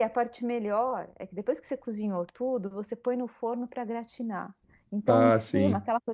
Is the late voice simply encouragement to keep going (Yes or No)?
Yes